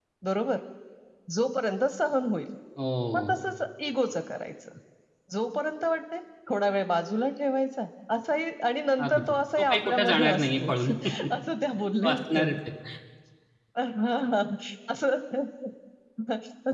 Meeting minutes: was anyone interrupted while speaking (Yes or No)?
Yes